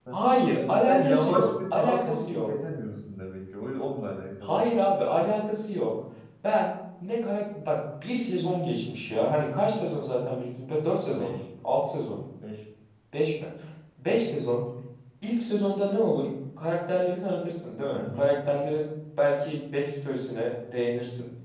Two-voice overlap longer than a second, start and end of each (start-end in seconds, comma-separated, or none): 0.9-2.5